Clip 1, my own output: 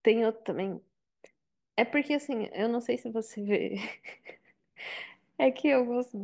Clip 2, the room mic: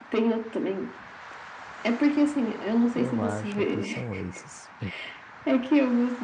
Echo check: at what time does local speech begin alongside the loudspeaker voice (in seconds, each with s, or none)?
2.9 s